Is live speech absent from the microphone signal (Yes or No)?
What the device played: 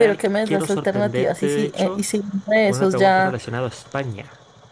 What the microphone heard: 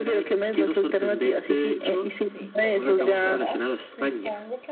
No